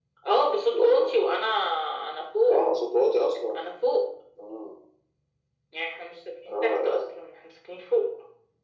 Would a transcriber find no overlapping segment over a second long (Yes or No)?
Yes